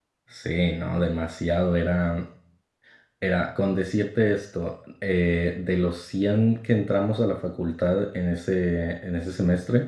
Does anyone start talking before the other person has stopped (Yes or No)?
No